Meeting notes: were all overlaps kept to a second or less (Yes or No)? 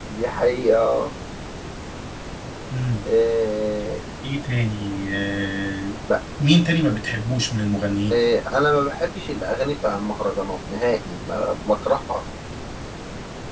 Yes